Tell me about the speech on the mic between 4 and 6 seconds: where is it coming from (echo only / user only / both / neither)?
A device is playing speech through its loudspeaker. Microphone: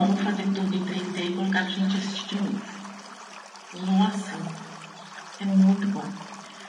echo only